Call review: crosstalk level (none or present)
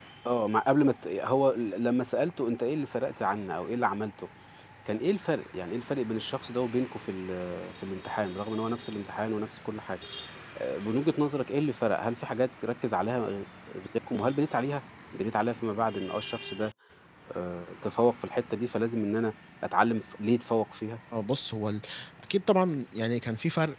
none